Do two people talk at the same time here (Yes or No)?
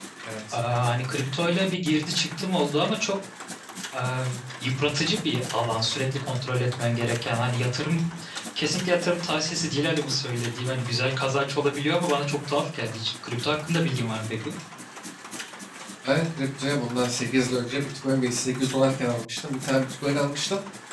No